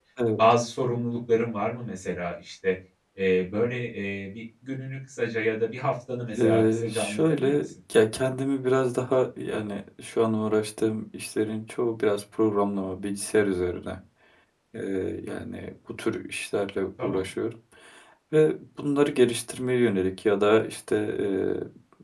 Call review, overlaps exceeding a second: present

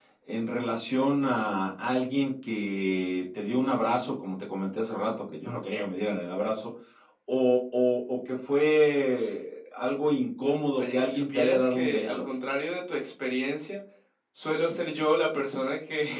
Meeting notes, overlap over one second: present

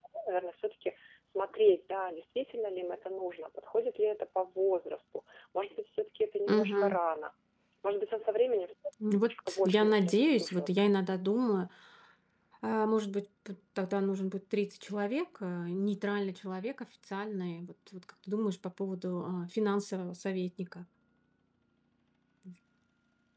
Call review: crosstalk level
present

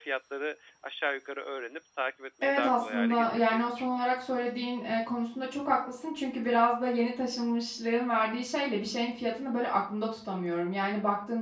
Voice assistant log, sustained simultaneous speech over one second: present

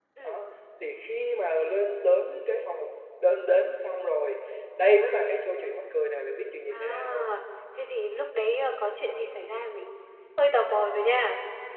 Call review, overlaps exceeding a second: none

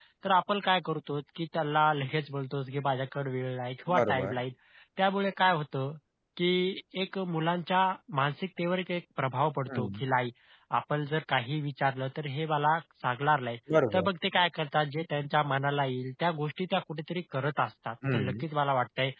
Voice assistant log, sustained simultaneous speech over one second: none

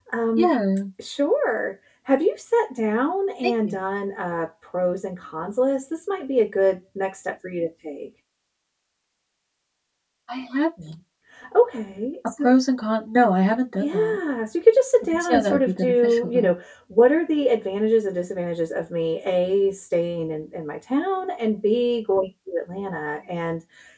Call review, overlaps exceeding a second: present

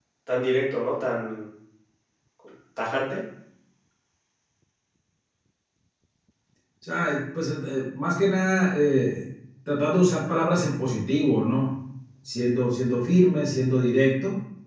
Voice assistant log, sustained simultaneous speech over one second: none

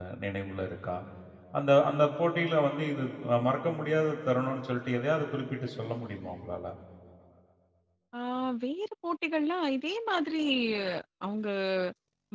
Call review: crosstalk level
none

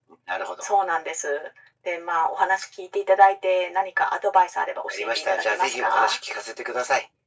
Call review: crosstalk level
present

